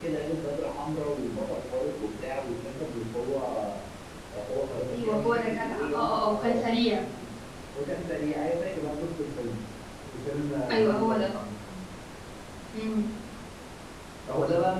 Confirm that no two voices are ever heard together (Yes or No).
No